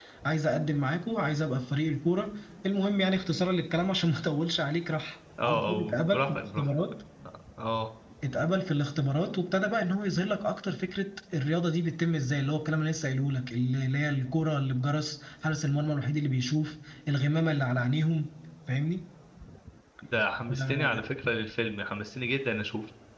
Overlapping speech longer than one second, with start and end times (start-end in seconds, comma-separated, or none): 5.4-6.6